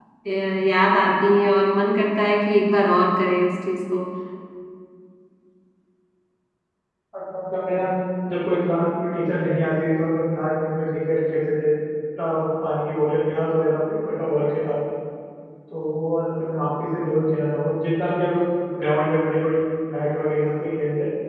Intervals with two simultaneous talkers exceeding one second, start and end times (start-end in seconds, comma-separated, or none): none